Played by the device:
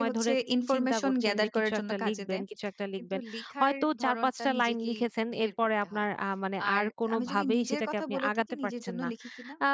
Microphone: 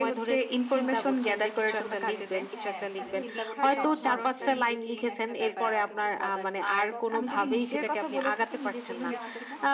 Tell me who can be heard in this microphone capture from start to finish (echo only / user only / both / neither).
both